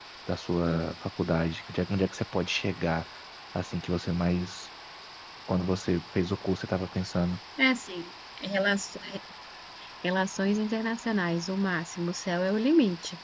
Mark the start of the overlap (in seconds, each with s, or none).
none